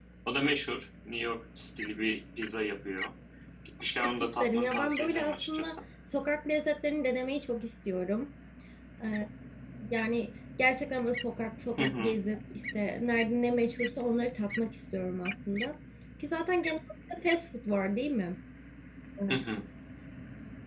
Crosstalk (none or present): present